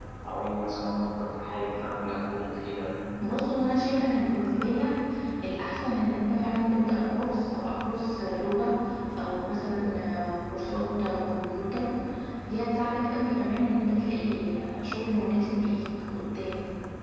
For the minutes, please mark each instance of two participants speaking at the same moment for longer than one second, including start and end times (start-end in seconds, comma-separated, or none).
none